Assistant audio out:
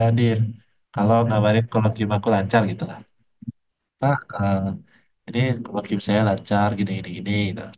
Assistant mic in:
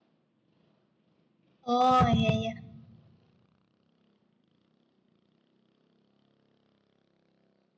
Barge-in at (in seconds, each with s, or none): 1.7 s